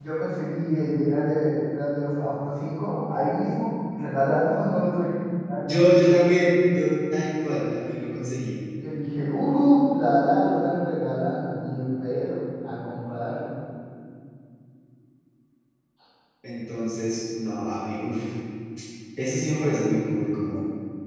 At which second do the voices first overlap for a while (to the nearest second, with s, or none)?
none